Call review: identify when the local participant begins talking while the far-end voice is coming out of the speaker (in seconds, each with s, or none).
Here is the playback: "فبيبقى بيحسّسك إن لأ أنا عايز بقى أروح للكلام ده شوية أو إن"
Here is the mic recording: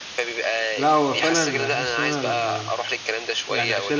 0.8 s